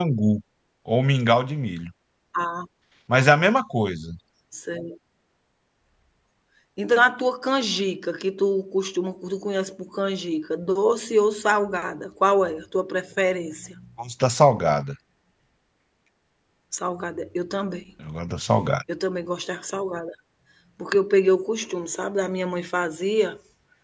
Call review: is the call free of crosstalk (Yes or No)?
Yes